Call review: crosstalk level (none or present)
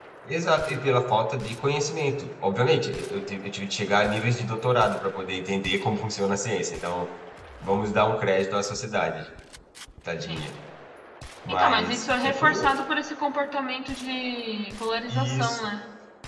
present